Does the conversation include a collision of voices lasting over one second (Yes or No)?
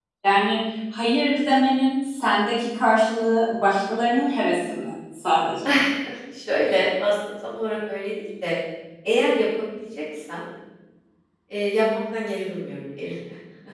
No